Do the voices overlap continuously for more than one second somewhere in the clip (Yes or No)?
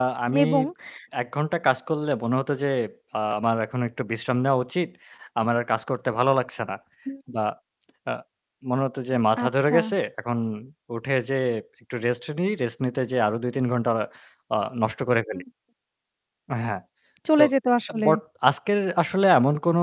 No